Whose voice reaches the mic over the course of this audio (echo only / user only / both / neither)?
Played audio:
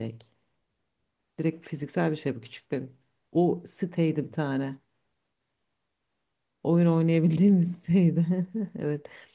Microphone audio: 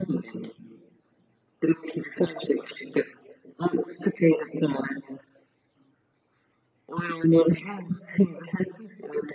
echo only